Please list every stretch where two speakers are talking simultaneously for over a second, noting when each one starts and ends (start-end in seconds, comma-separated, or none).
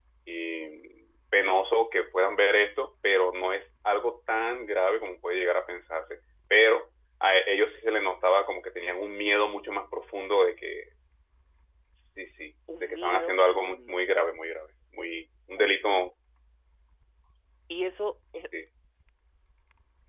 12.8-14.0